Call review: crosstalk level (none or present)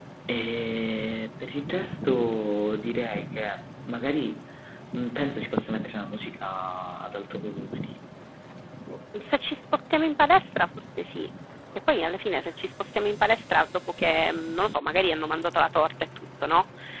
none